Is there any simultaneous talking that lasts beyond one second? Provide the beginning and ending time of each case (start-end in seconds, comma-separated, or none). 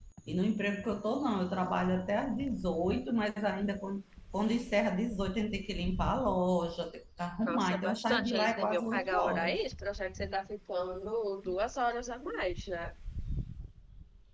7.5-9.6